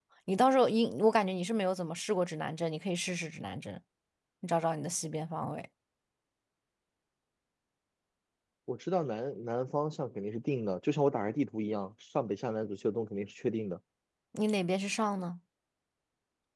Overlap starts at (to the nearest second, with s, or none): none